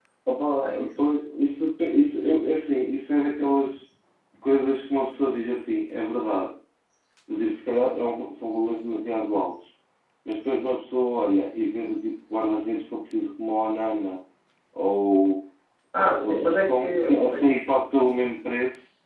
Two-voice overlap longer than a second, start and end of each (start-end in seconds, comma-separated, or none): 16.2-17.4